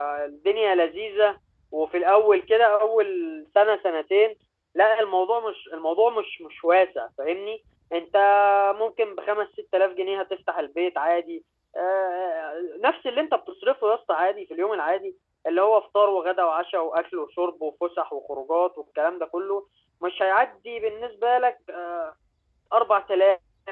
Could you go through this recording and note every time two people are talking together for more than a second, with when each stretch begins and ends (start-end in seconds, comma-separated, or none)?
none